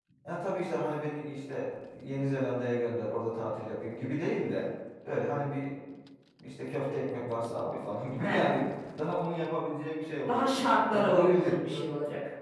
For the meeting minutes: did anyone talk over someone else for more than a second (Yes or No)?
Yes